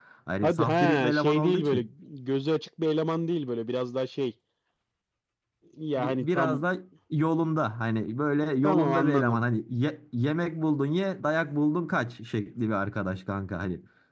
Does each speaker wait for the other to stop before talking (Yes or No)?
No